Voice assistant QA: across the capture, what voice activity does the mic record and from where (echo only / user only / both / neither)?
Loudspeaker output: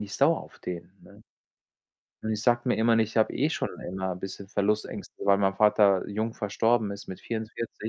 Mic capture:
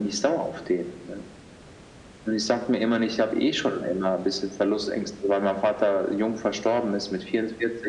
echo only